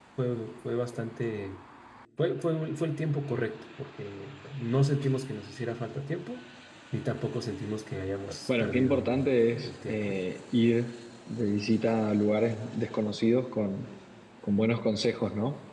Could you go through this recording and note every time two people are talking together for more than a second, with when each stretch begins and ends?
8.5-10.2

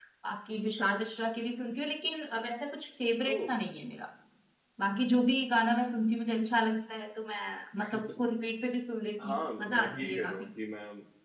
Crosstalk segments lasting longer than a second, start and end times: 9.2-10.5

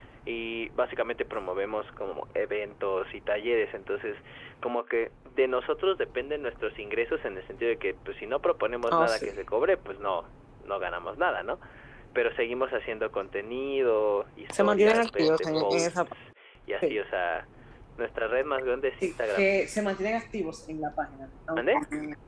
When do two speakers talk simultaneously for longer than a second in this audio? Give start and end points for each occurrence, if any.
14.6-16.1

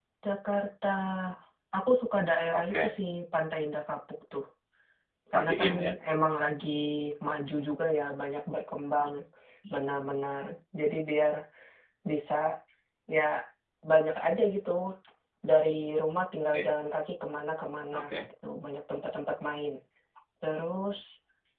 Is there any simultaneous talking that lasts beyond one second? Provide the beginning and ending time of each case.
none

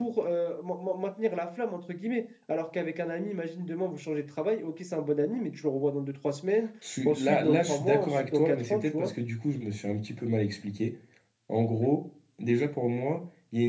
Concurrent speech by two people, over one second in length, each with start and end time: 7.0-9.1

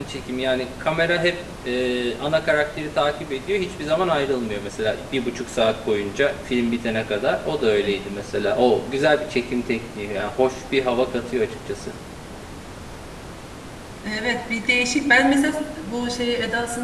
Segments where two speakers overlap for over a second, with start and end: none

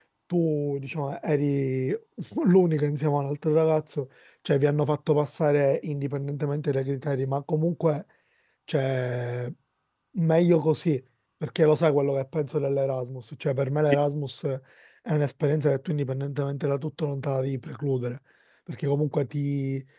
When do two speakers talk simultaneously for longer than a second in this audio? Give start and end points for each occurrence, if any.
none

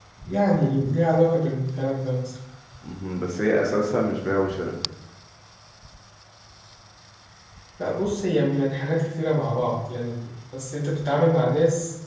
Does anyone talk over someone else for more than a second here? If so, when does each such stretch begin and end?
none

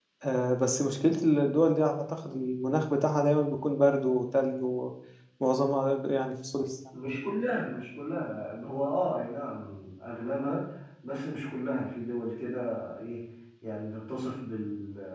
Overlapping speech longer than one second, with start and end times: none

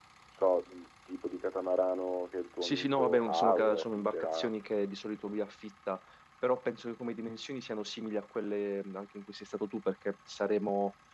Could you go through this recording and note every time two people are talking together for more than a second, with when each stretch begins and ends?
2.6-4.5

